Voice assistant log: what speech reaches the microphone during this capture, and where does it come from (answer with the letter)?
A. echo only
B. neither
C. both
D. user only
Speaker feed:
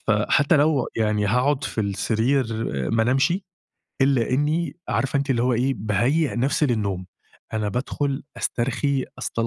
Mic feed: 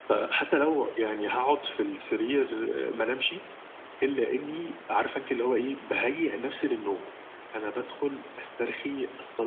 A